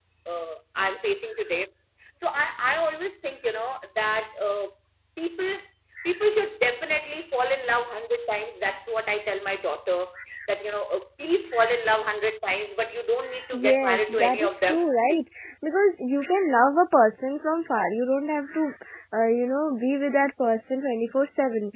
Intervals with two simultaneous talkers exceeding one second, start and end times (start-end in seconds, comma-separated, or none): 13.5-14.9